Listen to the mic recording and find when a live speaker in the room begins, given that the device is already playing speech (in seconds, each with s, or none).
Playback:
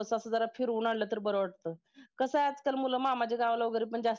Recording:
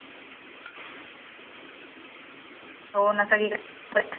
3.0 s